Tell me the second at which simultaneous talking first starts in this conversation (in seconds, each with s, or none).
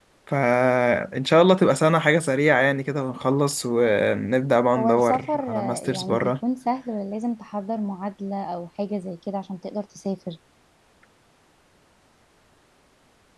4.8 s